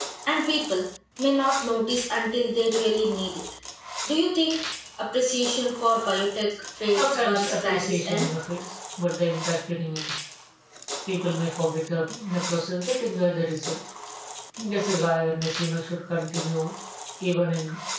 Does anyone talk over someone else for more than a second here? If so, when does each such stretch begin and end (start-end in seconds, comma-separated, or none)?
6.9-8.3